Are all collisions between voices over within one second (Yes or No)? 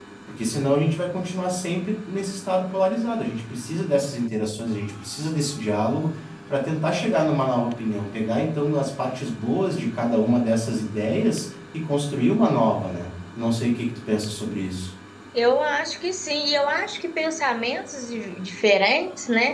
Yes